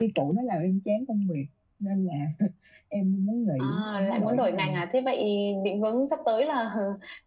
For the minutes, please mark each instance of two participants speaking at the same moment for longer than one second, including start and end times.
3.6-4.8

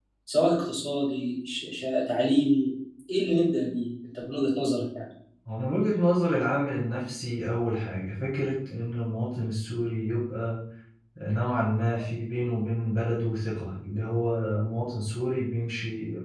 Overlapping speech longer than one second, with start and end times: none

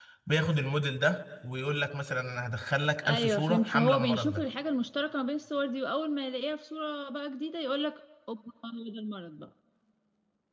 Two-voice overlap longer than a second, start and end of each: 3.0-4.5

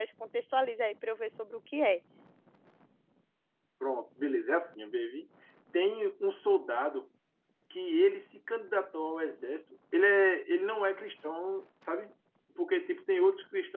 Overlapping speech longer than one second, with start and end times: none

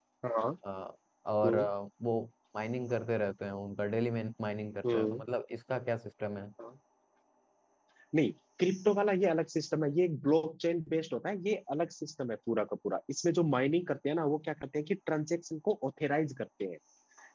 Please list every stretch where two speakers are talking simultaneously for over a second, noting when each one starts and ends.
none

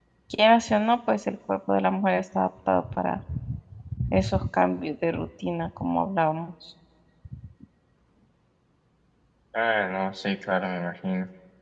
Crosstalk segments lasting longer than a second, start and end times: none

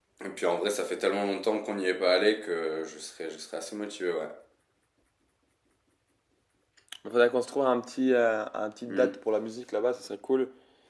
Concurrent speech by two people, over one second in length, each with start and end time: none

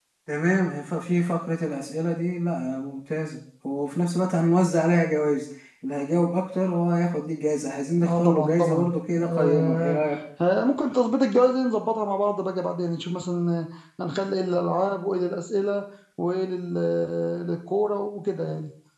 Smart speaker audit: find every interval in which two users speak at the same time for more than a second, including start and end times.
8.0-10.0

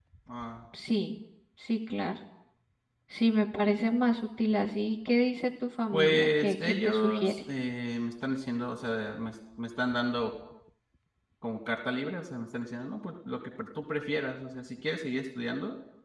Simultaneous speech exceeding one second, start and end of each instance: 5.9-7.4

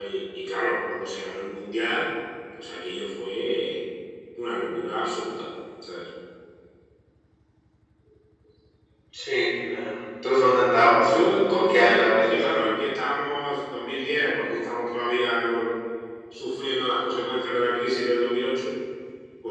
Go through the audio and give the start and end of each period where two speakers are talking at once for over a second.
10.9-12.7

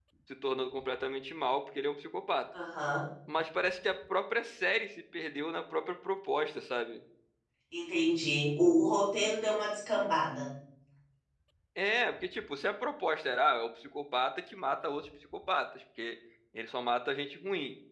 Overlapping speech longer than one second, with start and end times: none

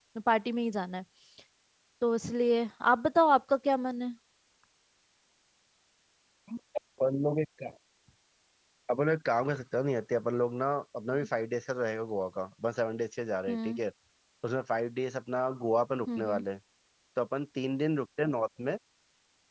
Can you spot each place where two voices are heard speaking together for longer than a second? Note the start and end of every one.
none

